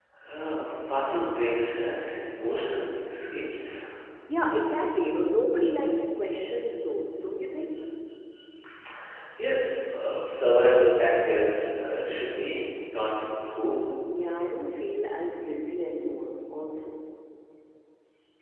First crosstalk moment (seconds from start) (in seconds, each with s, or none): none